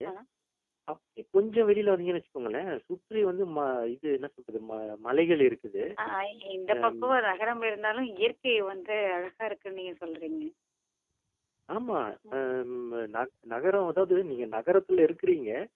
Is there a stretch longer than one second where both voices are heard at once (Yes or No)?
No